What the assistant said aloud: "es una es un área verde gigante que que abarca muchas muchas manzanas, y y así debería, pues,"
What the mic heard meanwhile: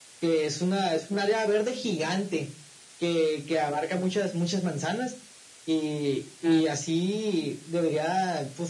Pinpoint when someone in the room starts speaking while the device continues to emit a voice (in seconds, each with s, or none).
6.4 s